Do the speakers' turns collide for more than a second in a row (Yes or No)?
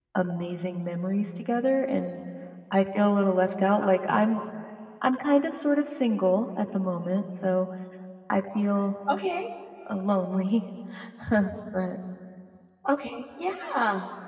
No